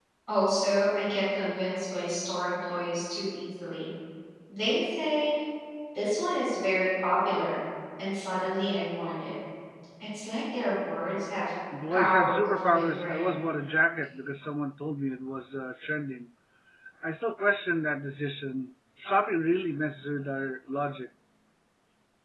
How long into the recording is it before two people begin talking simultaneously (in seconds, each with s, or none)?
11.7 s